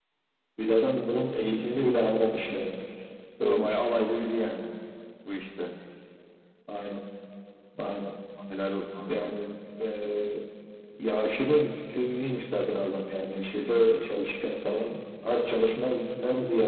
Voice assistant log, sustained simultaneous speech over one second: none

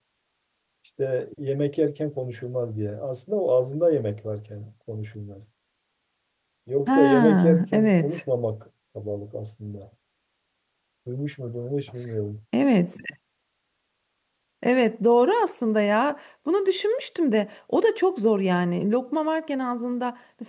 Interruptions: present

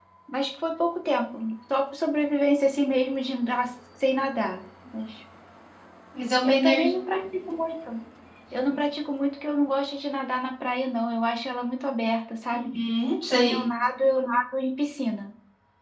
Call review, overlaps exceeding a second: none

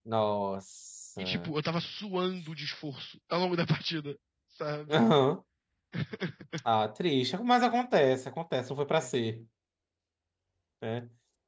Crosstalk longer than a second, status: none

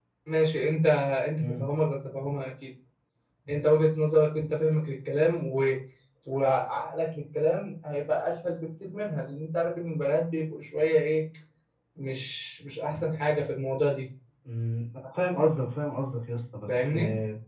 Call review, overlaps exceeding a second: none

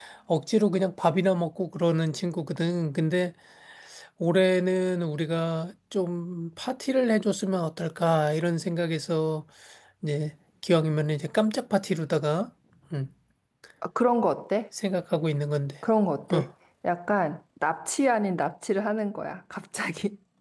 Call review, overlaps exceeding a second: none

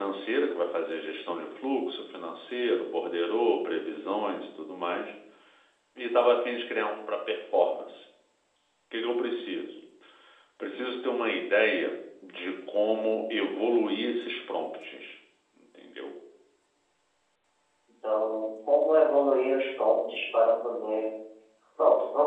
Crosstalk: none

